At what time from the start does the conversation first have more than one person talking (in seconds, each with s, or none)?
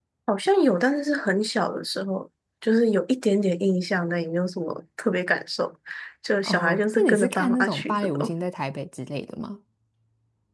6.4 s